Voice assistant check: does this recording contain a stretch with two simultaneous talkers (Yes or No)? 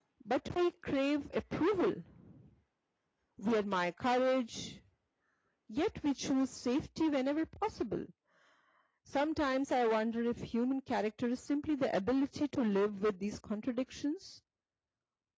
No